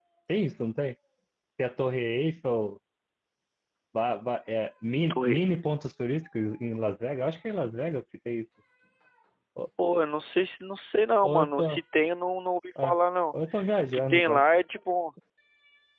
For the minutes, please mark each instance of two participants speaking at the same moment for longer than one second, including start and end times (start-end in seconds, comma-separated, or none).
none